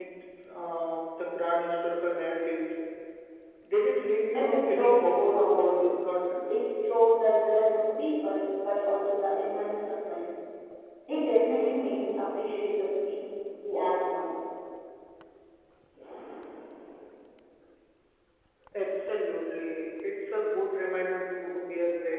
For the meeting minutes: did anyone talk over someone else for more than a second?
Yes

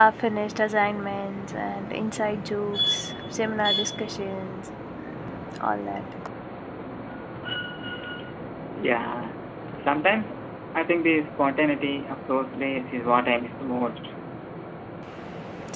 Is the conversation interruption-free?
Yes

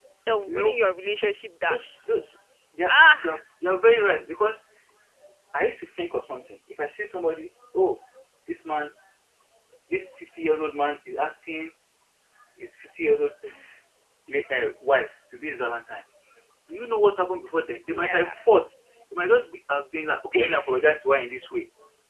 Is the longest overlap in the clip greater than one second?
No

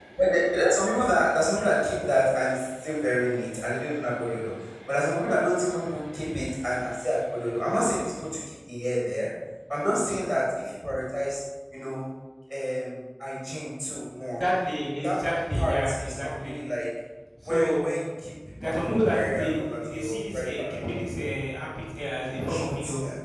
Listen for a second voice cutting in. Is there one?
Yes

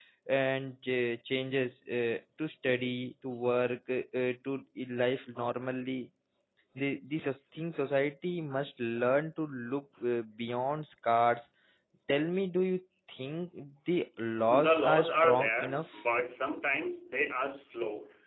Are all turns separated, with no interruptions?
No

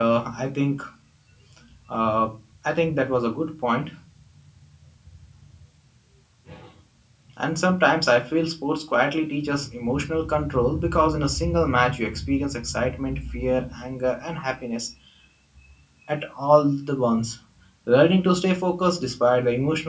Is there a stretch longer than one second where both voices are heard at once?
No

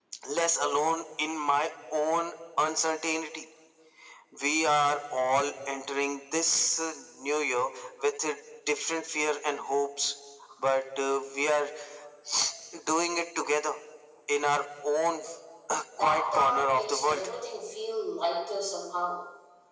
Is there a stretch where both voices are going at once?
Yes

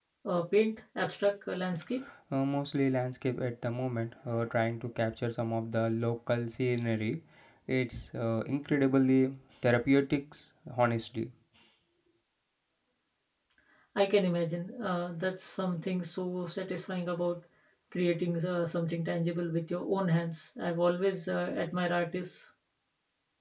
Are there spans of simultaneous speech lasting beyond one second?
No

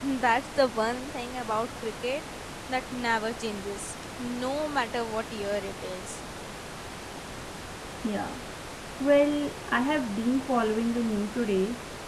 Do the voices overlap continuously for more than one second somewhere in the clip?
No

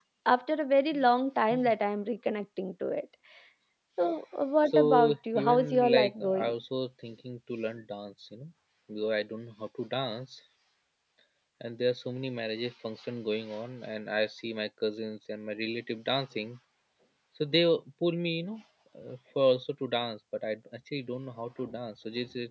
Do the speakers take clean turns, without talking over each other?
No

